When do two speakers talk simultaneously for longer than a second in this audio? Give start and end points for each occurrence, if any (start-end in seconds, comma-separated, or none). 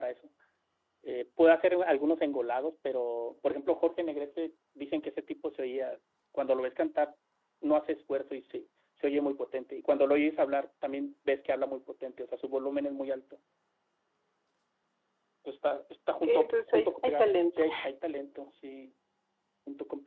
16.2-17.6